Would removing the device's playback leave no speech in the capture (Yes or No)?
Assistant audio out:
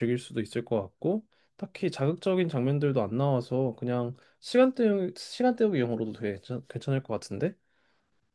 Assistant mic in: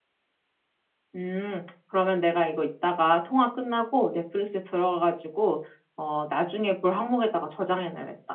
No